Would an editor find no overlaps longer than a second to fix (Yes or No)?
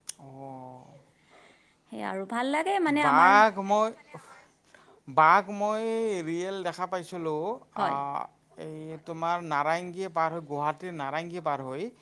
Yes